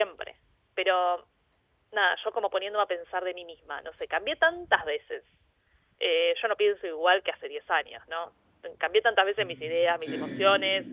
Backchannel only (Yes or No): Yes